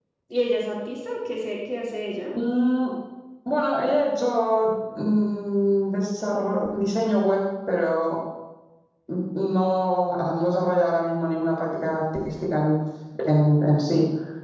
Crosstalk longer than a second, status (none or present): none